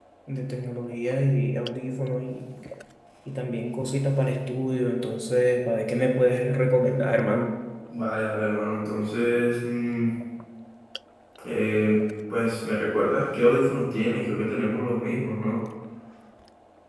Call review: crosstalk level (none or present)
none